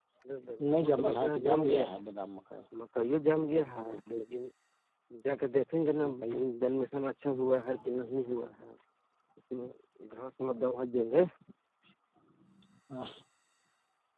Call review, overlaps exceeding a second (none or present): present